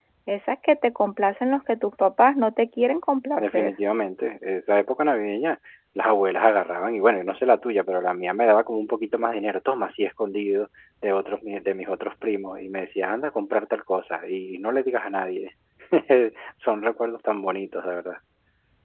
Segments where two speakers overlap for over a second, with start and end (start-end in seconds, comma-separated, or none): none